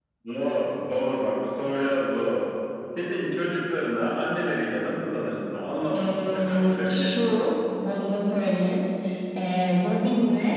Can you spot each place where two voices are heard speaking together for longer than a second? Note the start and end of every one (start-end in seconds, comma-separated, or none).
5.9-7.1